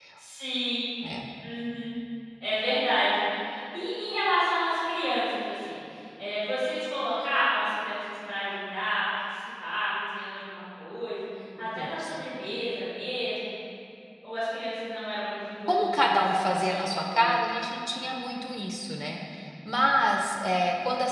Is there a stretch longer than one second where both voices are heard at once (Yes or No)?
Yes